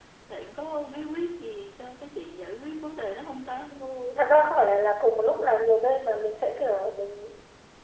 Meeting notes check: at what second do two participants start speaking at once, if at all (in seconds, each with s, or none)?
none